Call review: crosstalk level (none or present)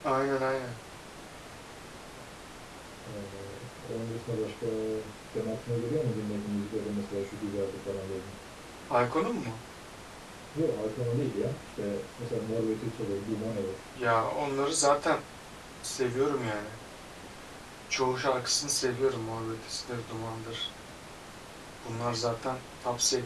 none